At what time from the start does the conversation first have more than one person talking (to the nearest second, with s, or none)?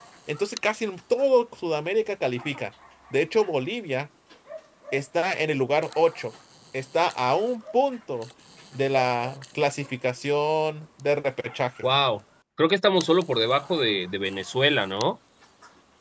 none